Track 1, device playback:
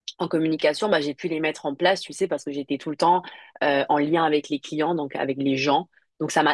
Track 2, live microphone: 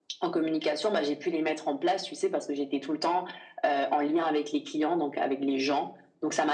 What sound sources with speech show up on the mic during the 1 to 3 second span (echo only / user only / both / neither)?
echo only